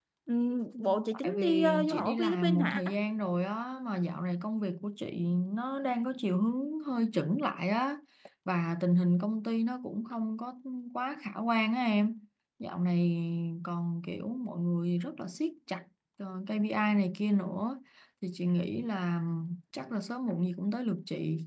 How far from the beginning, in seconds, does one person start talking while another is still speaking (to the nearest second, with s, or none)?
1 s